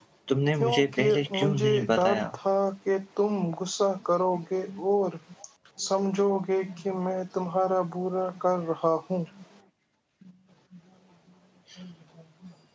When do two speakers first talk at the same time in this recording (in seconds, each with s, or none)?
0.6 s